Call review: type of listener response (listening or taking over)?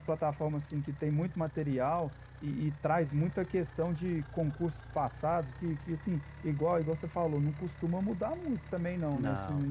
listening